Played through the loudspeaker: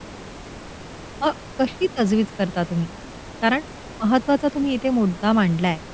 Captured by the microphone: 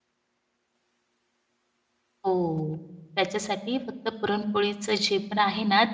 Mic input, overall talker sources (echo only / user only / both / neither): user only